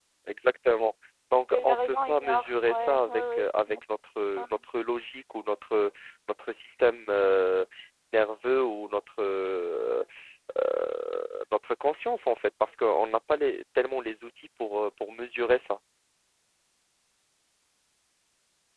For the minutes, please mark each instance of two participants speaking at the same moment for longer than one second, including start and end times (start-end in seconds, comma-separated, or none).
1.5-3.8